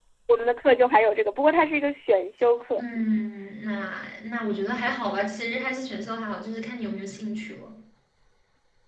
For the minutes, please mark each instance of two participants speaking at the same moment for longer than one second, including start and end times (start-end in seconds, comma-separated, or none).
none